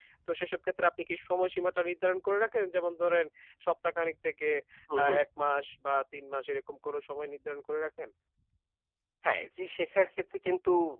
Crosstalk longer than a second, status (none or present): none